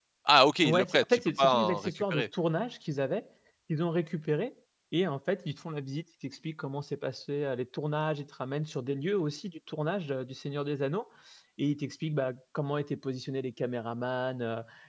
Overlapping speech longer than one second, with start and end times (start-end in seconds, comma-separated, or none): 0.7-2.2